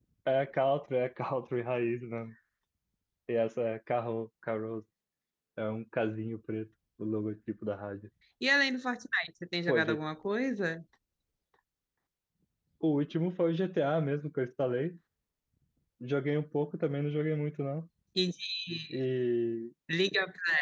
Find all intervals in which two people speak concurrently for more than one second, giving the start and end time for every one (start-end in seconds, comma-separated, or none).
none